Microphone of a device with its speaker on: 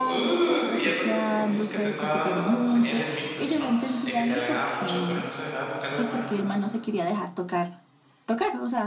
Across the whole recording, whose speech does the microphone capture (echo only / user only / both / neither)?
both